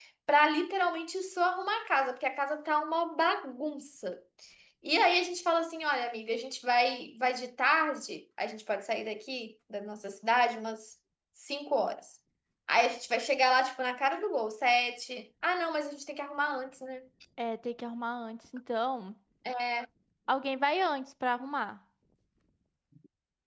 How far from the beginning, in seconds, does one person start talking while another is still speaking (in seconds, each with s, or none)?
none